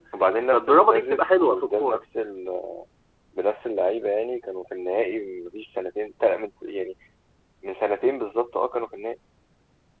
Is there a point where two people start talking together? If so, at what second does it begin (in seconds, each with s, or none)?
0.5 s